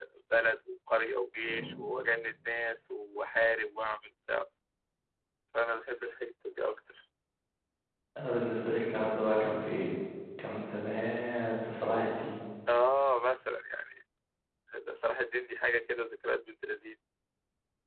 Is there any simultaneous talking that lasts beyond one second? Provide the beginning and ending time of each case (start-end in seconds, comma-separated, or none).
none